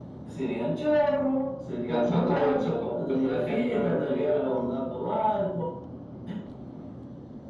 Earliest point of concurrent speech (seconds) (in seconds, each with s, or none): 1.9 s